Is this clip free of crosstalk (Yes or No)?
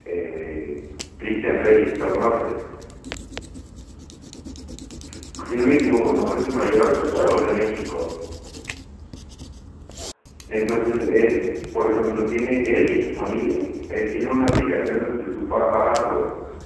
No